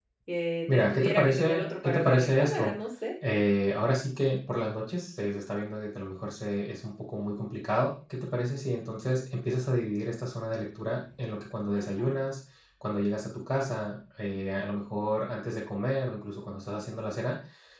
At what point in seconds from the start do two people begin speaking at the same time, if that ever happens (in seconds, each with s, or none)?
0.7 s